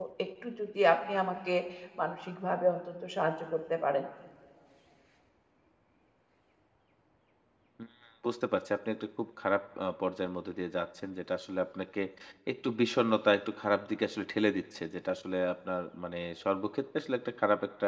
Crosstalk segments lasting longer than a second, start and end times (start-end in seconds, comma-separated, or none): none